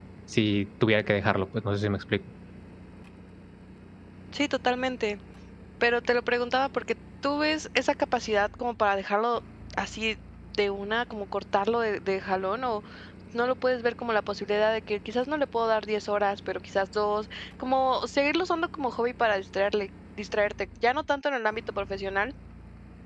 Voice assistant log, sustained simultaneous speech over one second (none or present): none